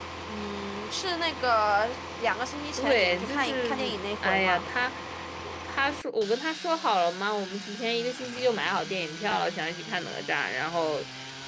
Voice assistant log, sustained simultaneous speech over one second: present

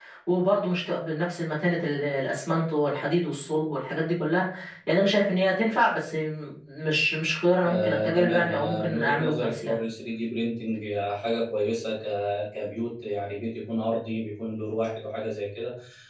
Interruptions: present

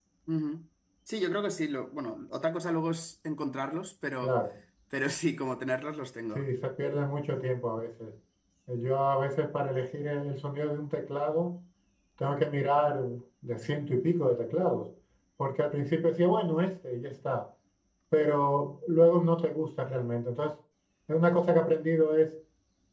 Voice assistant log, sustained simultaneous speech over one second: none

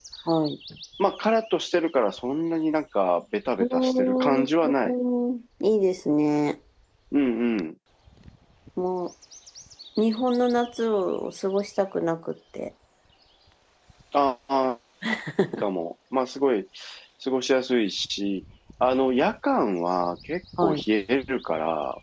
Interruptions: present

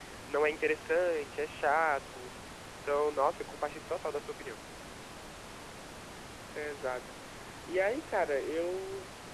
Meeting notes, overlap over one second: none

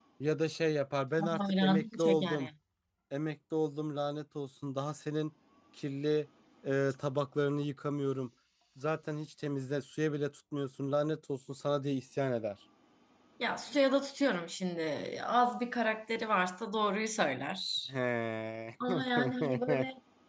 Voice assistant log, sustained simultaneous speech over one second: present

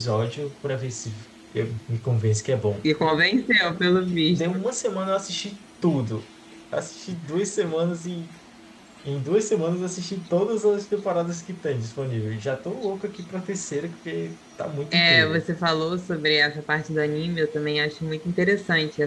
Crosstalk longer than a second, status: none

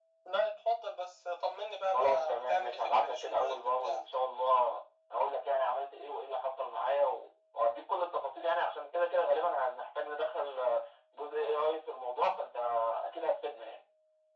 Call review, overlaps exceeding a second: present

